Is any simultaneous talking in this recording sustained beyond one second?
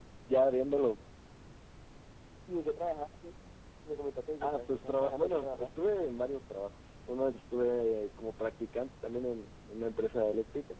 Yes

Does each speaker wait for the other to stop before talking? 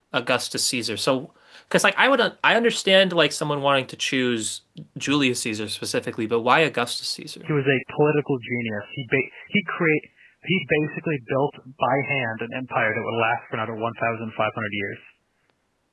Yes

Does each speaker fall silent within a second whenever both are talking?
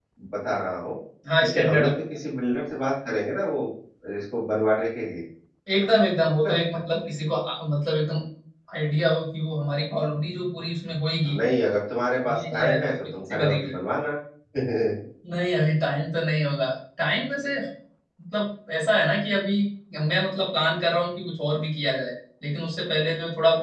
No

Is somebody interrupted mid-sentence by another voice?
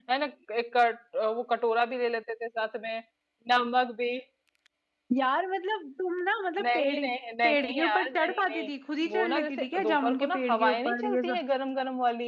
Yes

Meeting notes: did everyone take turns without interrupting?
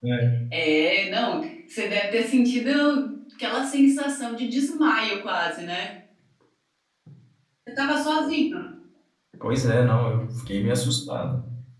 Yes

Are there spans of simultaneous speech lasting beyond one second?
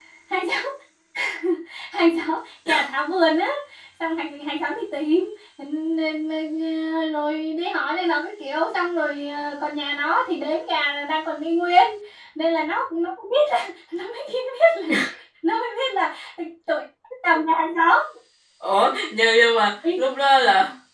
No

